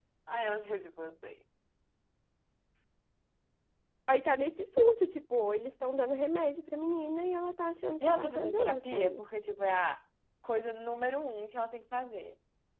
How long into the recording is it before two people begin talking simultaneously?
8.0 s

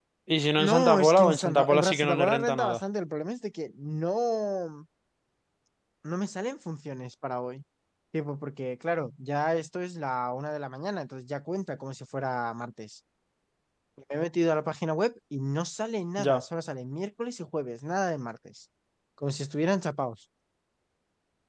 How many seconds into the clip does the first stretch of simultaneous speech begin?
0.7 s

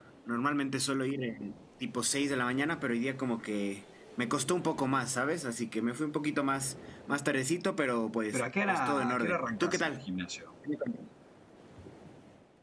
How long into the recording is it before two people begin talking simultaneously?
8.3 s

